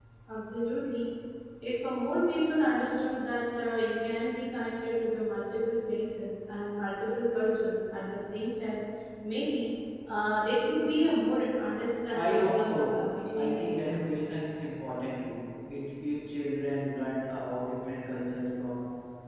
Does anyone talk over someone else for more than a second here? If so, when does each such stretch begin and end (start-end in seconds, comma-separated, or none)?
12.1-14.0